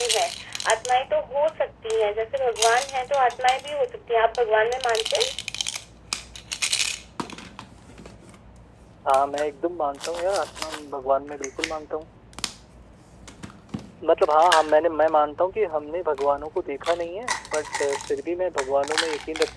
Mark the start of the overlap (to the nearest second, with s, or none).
none